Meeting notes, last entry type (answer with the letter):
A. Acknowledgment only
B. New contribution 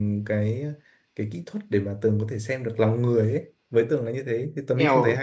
B